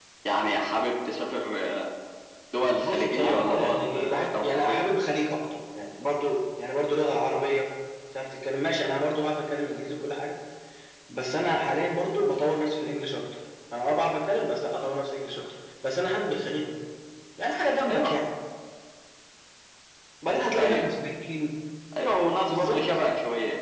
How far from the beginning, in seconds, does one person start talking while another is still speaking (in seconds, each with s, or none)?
2.8 s